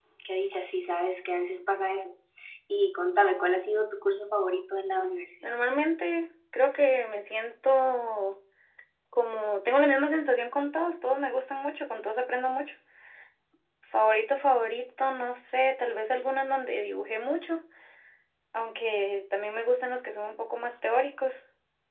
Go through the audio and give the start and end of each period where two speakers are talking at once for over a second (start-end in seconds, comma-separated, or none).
none